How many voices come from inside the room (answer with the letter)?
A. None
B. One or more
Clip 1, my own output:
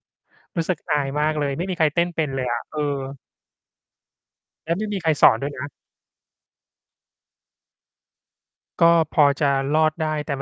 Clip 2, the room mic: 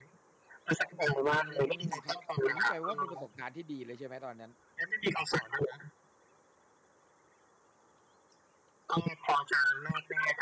B